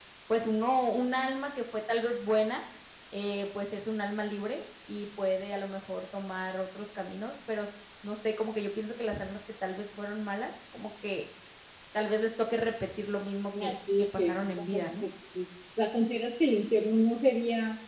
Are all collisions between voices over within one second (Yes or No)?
No